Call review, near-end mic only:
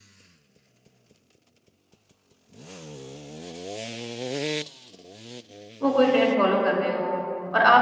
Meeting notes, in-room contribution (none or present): present